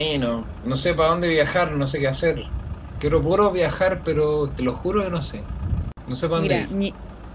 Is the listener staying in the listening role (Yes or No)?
No